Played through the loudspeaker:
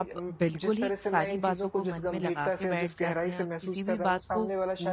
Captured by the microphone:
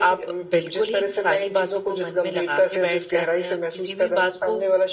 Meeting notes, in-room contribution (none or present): none